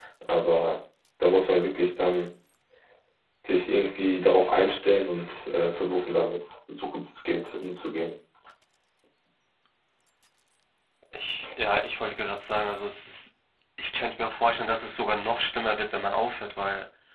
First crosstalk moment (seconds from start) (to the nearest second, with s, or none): none